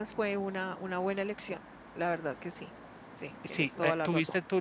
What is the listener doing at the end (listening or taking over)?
taking over